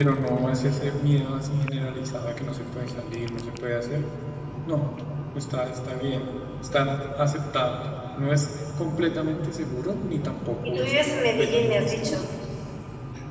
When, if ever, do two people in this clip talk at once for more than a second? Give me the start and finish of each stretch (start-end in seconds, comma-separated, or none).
10.7-12.2